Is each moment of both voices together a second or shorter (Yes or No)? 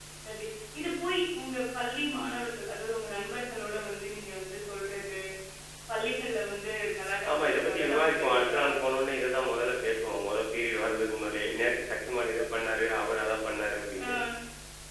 No